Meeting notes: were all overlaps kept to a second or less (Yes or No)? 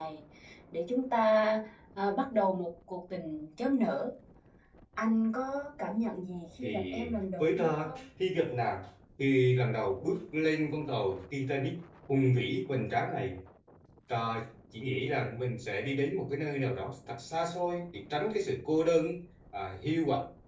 No